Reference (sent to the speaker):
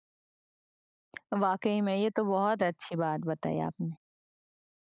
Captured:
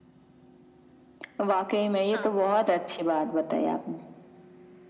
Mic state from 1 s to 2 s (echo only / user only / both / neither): echo only